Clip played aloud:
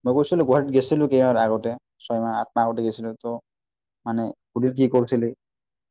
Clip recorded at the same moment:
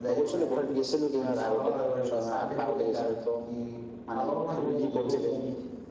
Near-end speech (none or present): present